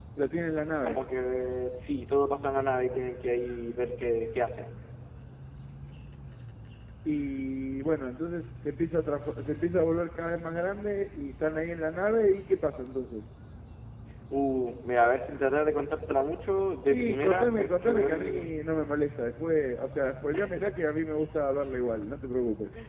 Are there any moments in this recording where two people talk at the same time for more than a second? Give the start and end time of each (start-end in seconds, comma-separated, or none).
16.9-18.5